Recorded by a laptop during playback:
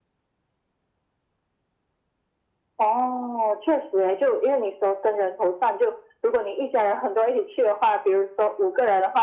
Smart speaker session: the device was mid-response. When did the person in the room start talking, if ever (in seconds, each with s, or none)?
none